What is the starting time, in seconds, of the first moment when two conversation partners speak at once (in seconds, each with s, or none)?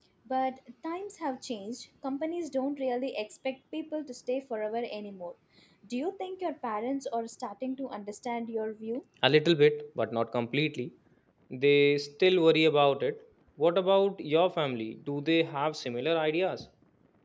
none